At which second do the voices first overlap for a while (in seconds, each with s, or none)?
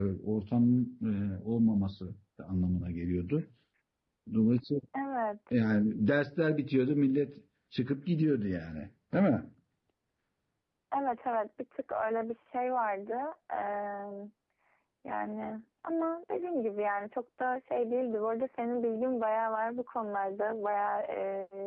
none